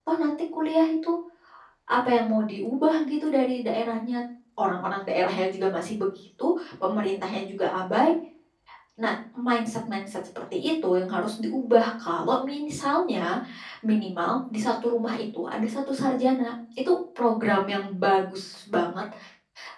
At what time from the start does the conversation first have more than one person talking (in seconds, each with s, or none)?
none